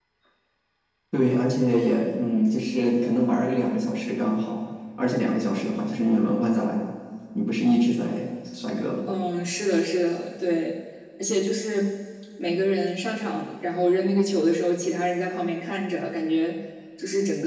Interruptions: none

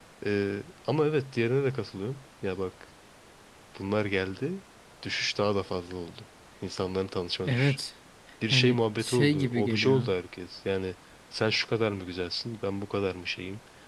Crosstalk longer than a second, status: present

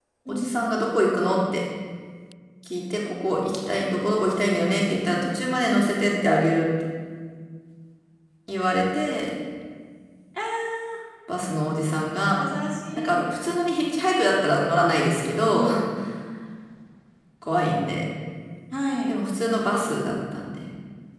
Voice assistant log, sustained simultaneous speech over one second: none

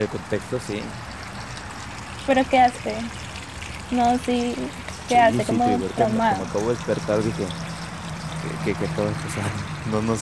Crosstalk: present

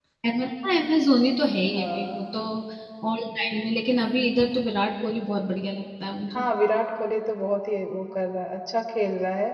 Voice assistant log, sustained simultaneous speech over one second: none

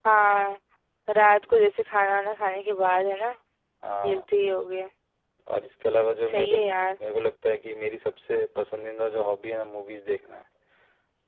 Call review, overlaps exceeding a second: none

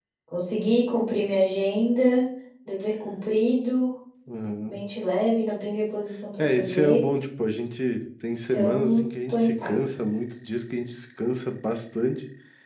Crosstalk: present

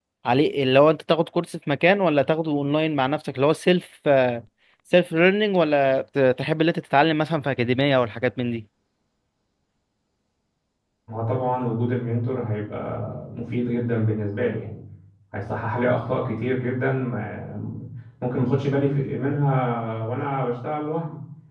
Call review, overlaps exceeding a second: none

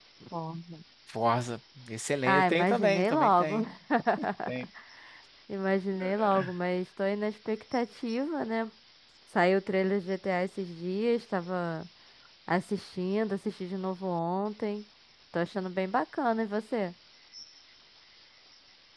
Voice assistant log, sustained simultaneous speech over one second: present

